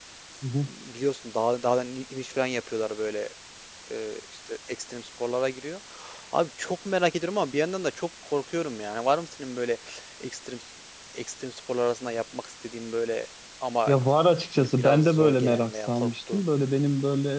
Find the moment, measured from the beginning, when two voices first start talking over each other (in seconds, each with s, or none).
14.6 s